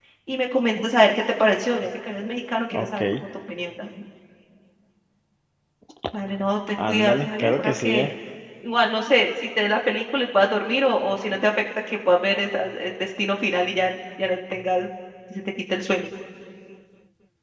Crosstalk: present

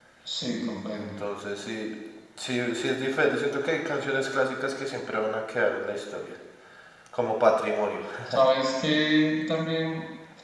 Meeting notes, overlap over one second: none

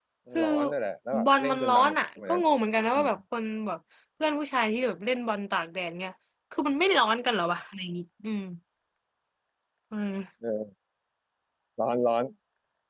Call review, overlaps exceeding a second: present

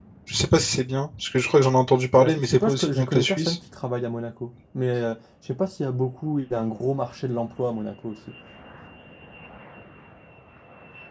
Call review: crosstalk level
present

